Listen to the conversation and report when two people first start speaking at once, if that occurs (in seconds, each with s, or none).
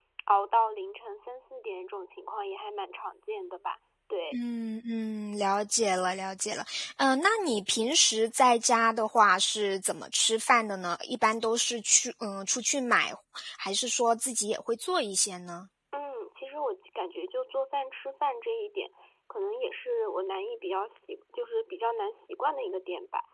none